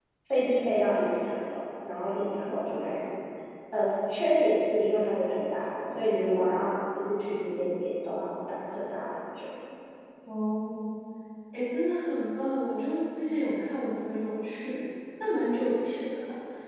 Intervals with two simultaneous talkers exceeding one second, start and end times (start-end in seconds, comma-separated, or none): none